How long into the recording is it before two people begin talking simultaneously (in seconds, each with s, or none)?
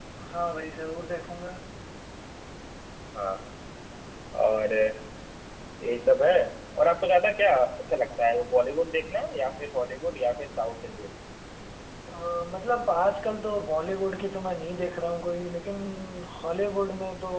none